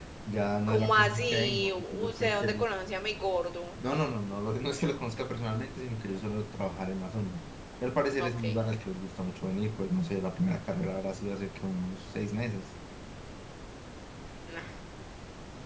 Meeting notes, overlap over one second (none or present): present